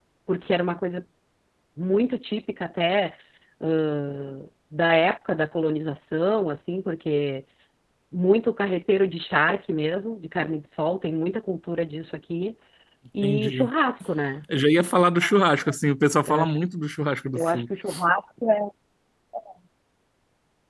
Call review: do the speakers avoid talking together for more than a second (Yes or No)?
Yes